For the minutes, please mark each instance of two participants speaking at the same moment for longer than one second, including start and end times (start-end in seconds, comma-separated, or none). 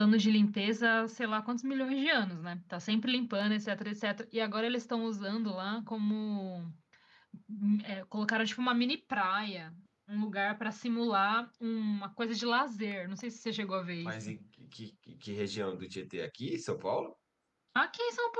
none